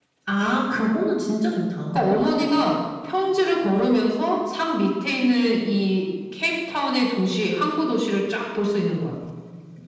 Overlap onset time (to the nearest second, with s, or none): none